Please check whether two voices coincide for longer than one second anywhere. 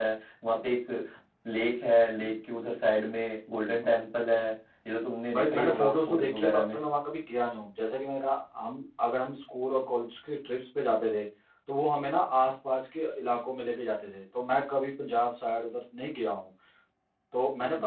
Yes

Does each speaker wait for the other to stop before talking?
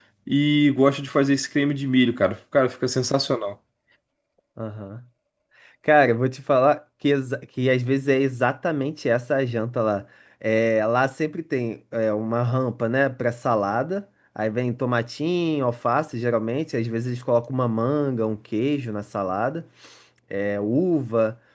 Yes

